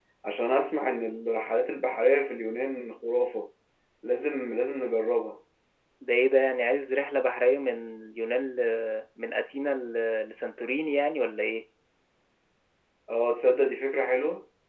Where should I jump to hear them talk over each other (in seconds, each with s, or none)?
none